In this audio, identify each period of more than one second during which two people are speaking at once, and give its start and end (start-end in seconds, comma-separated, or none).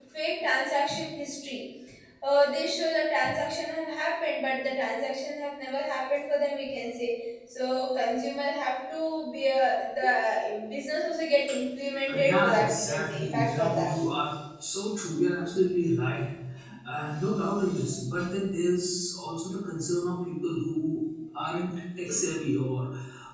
12.1-13.9